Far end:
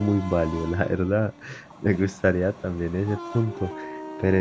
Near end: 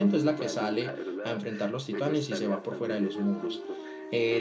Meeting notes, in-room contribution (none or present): present